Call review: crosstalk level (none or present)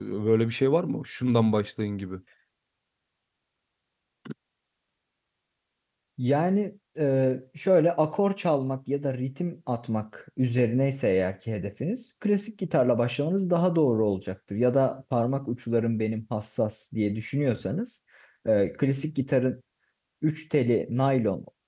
none